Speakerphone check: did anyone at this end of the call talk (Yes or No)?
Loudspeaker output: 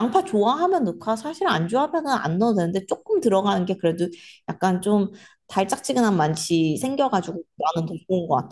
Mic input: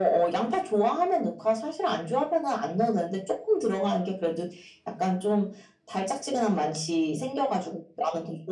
No